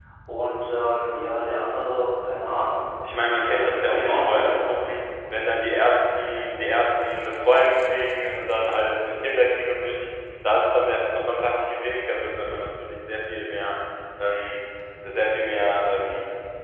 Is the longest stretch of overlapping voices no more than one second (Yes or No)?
No